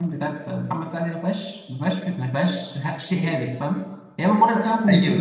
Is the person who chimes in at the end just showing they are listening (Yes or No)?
No